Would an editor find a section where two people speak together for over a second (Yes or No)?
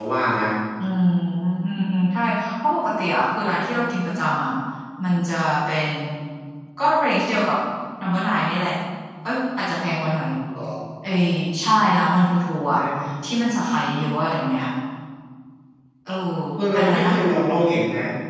No